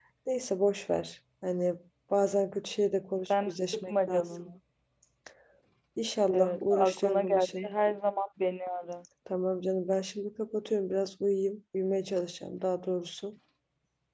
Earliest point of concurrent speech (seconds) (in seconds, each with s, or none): 3.2 s